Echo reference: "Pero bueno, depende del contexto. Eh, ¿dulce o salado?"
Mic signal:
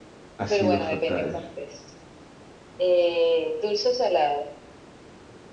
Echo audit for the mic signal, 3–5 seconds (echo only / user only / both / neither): echo only